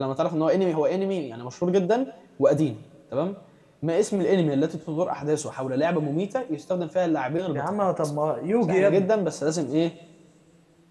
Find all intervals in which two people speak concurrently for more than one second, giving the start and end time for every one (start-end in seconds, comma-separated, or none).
none